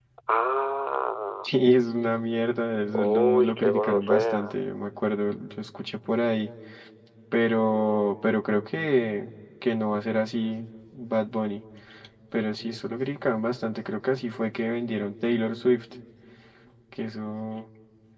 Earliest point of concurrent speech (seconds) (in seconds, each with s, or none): 2.9 s